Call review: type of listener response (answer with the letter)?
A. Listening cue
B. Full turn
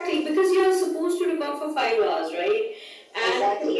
A